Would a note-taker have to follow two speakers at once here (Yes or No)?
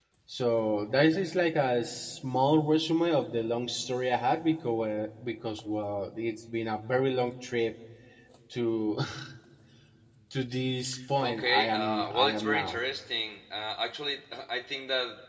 Yes